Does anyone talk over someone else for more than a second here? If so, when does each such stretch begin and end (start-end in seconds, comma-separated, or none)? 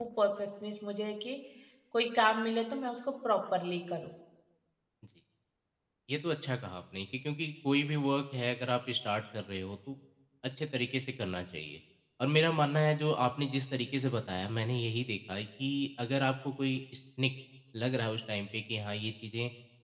none